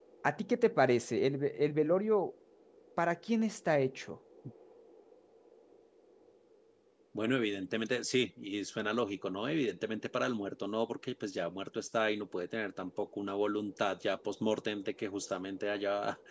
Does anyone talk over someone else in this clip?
No

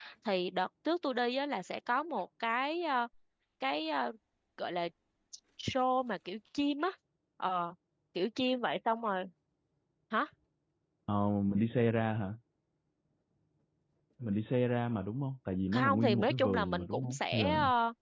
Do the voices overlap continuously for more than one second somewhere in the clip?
Yes, from 15.7 s

